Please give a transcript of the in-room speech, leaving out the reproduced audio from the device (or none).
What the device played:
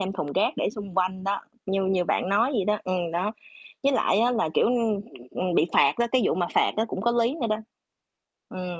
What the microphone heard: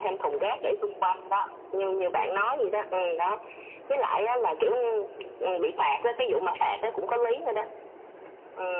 Ừm, ừm.